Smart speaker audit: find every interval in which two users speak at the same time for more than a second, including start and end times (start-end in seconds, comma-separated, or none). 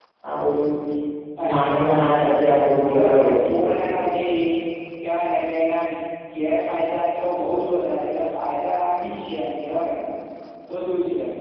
1.4-4.0